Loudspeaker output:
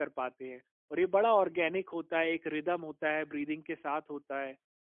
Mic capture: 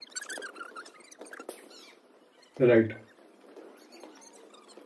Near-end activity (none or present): present